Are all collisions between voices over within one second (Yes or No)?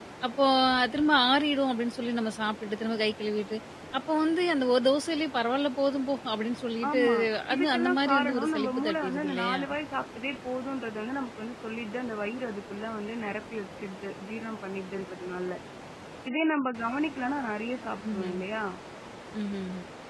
No